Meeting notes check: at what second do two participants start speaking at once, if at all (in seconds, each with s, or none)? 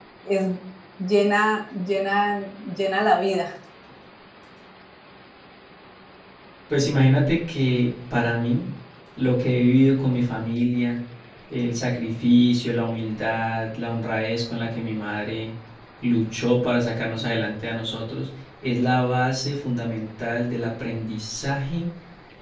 none